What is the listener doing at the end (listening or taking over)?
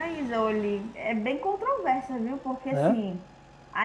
listening